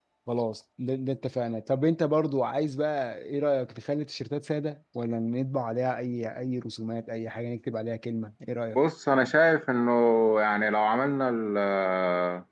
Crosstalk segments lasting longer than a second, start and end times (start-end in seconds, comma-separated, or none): none